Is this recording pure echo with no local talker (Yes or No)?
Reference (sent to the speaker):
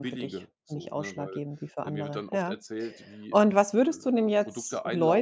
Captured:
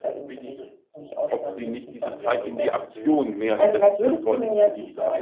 No